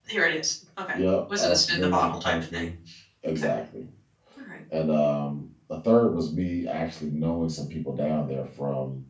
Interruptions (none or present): present